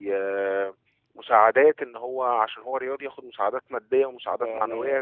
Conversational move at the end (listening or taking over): listening